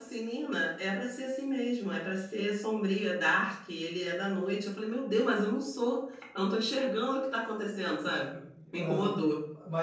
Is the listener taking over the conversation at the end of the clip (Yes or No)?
Yes